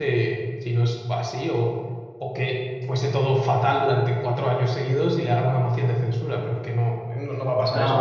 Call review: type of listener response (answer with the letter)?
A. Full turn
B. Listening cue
A